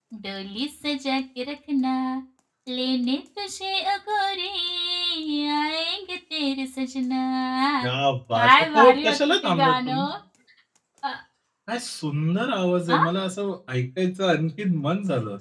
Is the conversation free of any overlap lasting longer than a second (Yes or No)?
No